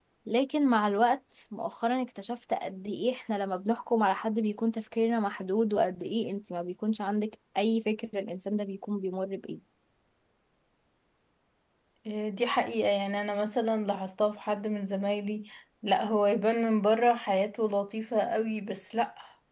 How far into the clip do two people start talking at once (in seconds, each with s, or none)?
none